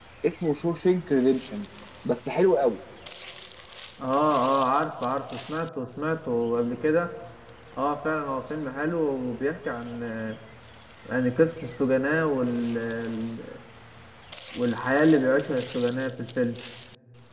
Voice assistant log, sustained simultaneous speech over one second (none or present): none